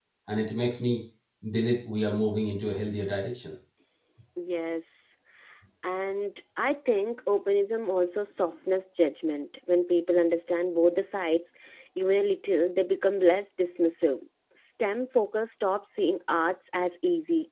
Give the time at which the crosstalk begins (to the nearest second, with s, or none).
none